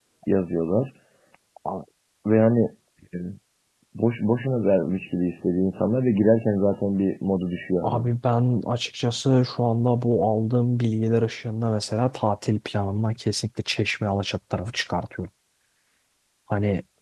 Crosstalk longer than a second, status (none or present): none